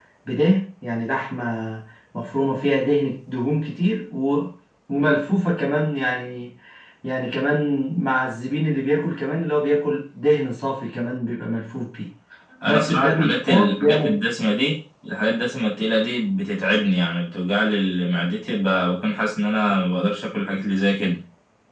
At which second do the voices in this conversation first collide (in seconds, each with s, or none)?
12.7 s